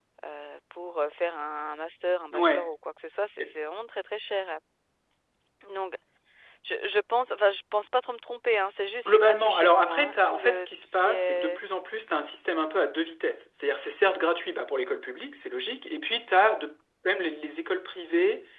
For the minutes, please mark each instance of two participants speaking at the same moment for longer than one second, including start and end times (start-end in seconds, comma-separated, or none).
9.0-11.6